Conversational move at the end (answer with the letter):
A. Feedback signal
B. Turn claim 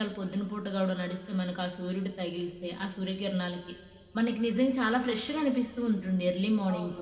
B